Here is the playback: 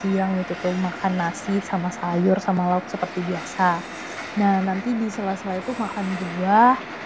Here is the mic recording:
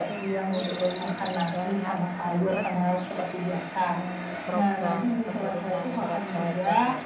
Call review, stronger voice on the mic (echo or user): echo